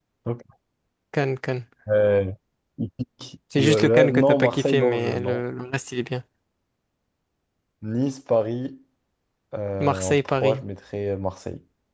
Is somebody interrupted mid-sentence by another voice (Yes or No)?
Yes